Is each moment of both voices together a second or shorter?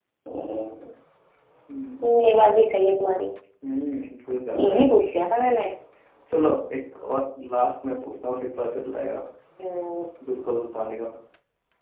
Yes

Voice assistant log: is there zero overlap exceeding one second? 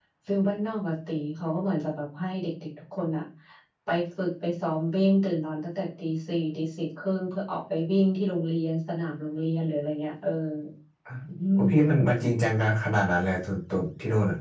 Yes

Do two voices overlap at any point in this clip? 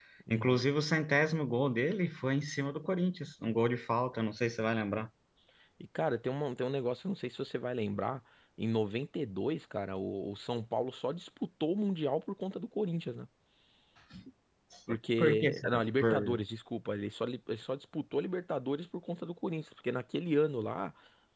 Yes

